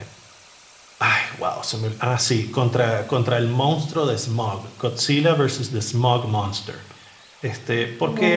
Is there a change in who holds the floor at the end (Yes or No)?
No